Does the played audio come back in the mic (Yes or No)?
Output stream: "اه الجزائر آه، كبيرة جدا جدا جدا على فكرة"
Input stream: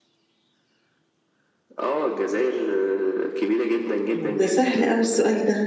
Yes